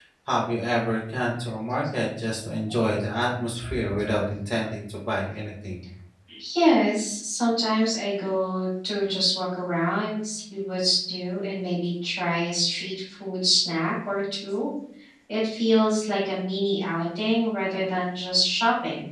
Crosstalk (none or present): none